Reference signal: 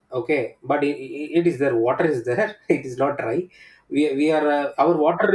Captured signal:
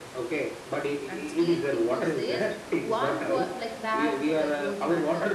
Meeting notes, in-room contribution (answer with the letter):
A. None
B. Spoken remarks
B